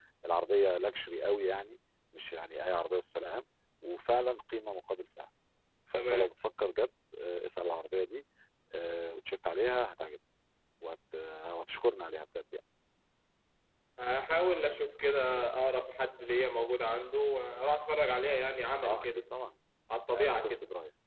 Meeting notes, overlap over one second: none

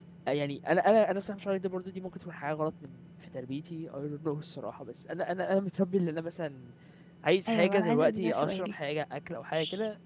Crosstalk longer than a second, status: present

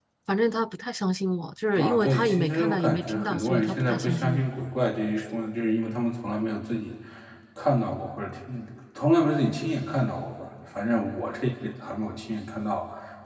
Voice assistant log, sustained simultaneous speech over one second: present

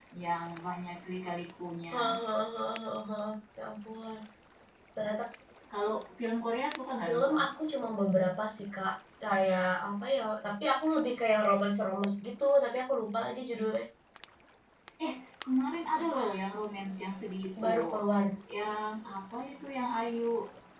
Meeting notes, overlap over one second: none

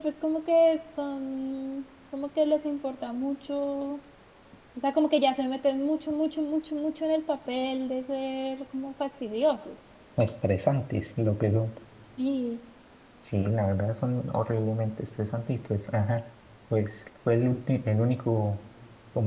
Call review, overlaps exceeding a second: none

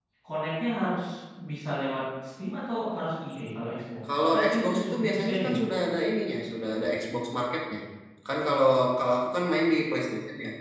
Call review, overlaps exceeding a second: present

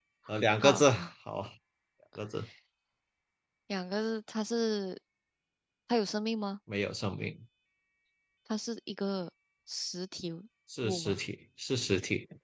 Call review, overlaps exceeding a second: none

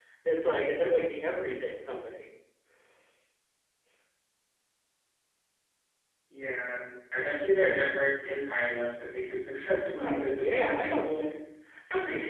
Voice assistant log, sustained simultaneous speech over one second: present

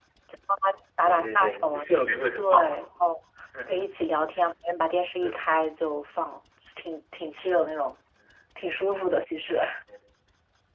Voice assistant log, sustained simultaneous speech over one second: present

